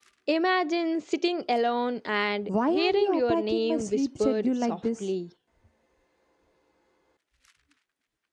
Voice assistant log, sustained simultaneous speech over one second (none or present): present